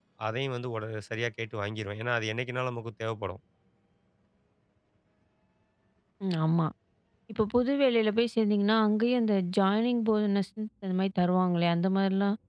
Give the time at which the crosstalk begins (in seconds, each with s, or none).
none